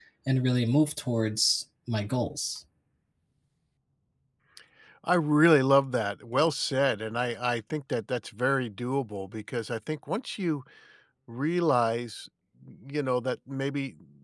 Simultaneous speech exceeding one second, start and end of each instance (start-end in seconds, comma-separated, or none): none